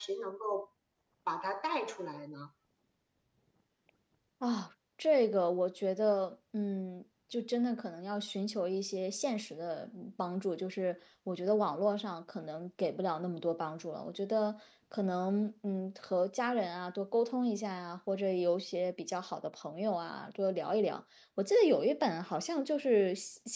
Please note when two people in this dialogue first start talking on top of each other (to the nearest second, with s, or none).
none